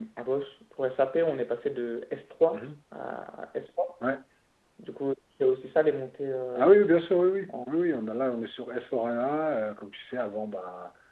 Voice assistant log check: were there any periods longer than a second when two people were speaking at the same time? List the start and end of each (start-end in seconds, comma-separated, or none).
none